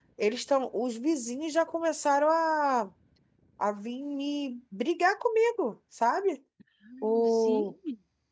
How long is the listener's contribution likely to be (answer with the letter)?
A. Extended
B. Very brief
B